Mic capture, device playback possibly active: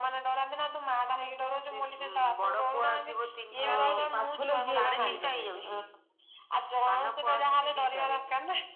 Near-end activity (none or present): present